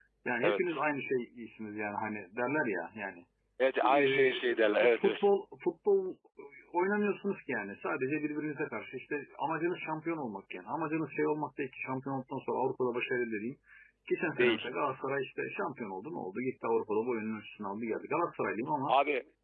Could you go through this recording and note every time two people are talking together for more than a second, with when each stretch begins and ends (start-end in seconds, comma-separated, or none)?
3.8-5.3